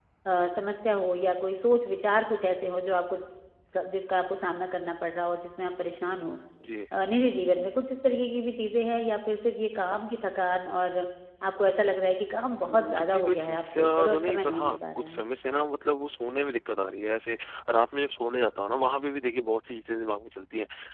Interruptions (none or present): present